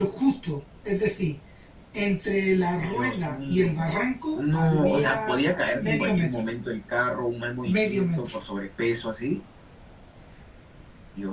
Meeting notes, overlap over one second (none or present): present